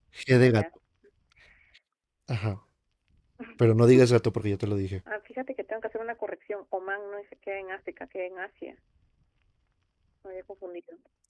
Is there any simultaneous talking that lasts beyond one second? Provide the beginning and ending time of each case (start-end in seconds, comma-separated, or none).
none